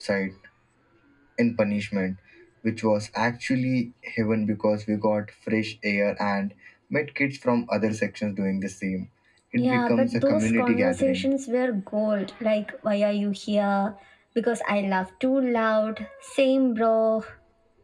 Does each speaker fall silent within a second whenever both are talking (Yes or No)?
No